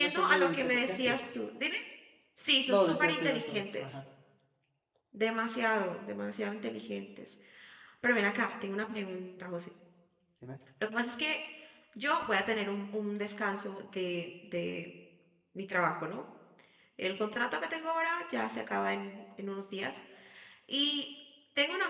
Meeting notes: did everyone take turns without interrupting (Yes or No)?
No